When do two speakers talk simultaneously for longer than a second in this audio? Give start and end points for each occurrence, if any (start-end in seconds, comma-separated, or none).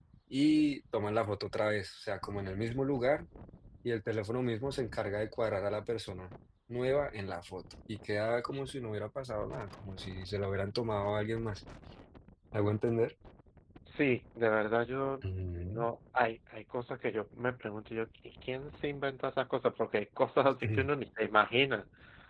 none